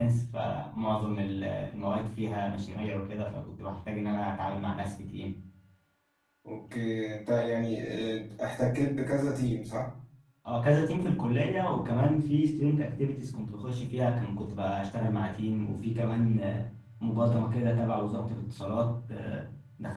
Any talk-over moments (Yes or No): No